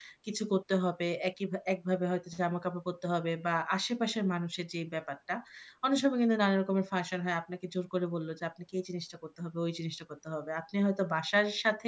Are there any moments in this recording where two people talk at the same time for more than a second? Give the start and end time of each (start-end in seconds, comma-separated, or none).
none